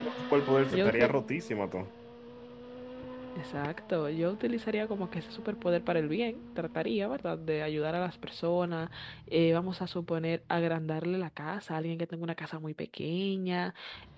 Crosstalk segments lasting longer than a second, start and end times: none

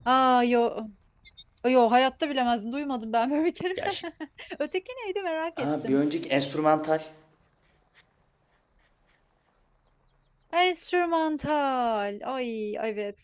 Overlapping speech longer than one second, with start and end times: none

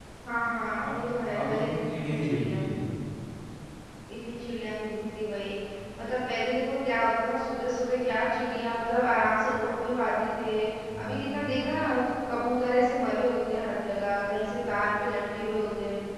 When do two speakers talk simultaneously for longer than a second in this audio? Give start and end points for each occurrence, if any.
1.4-2.6

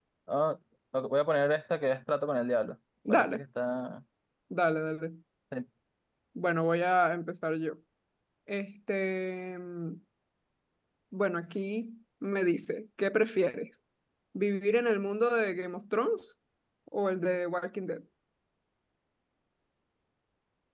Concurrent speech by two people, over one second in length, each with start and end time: none

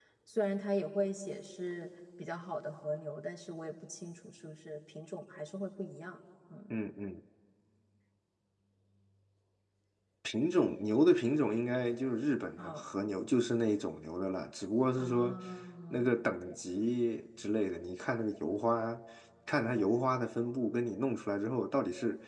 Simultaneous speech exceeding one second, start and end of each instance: none

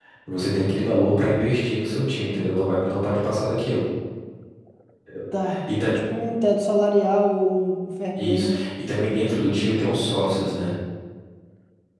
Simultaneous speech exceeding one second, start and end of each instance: none

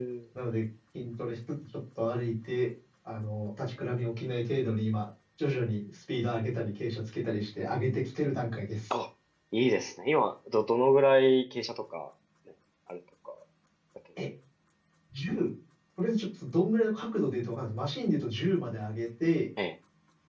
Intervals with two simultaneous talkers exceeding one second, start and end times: none

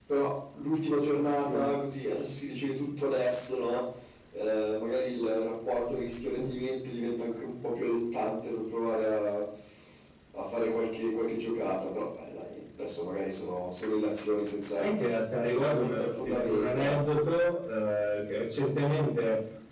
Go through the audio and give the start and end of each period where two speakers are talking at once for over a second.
15.4-17.2

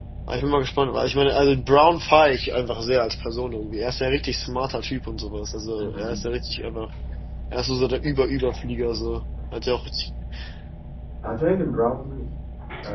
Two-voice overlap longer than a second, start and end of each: none

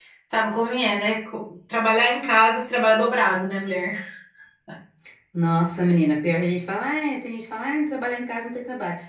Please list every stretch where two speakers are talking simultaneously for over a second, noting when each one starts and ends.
none

